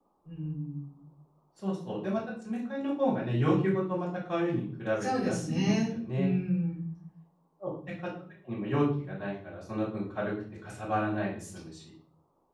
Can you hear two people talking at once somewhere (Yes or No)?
Yes